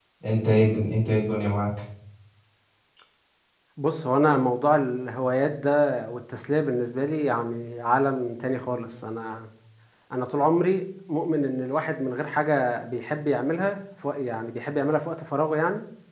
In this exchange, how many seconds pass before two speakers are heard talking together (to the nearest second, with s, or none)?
none